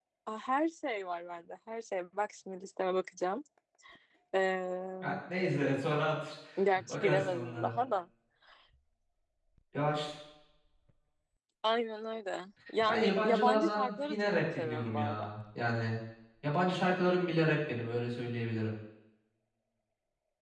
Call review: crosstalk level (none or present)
present